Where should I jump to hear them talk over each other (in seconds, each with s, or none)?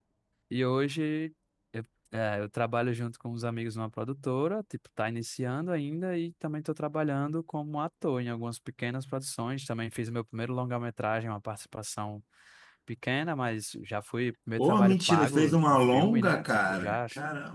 14.6 s